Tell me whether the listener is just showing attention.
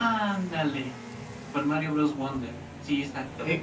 No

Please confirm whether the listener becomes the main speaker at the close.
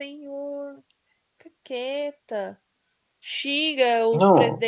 No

